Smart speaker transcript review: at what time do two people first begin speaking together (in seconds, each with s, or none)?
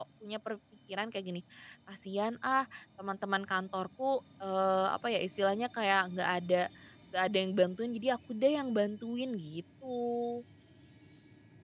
none